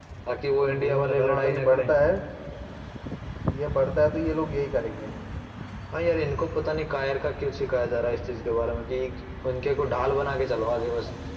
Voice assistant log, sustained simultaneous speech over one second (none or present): present